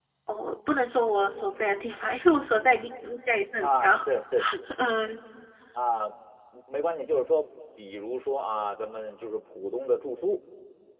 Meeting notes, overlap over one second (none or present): none